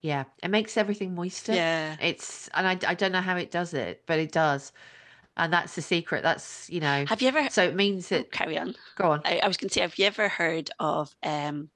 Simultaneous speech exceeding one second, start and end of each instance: none

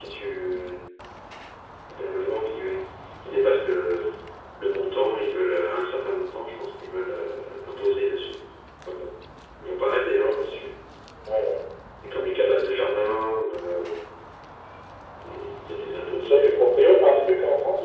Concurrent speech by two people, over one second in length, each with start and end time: none

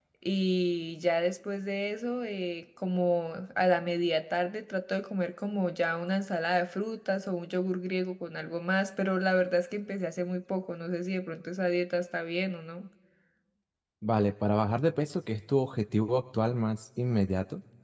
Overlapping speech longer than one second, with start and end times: none

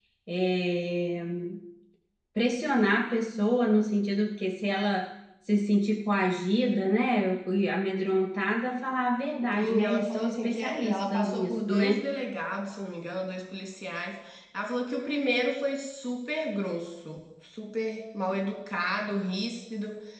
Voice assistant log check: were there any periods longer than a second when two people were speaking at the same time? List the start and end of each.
9.5-12.1

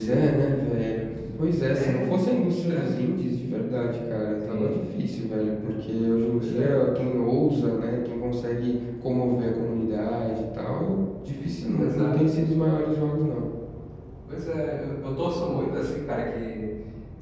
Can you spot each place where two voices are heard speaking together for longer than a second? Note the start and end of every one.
1.7-3.0

